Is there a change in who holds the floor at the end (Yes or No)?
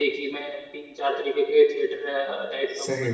No